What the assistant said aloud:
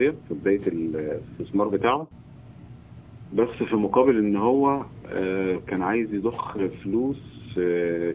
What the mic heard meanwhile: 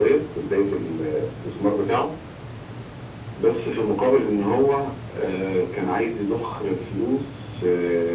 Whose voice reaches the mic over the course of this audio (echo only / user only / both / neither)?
echo only